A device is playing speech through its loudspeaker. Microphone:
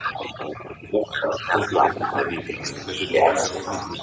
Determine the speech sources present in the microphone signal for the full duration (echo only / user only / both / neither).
both